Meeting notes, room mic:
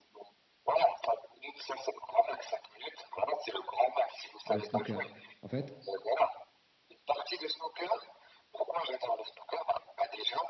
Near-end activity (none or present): present